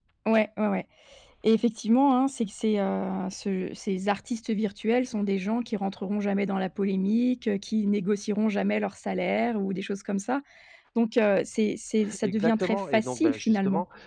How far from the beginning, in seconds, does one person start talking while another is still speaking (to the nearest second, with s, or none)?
12 s